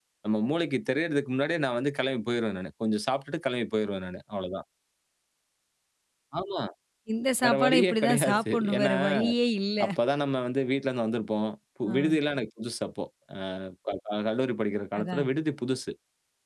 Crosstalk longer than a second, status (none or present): present